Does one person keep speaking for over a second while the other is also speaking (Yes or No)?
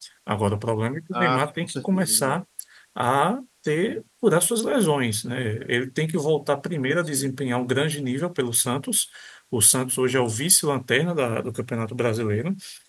Yes